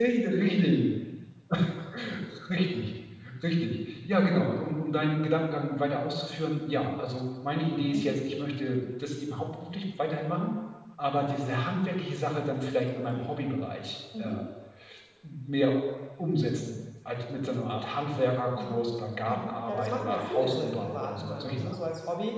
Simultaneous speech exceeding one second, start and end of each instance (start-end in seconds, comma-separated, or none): 19.3-21.8